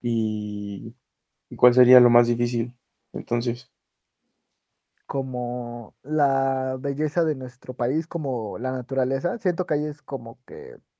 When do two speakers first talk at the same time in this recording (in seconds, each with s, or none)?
none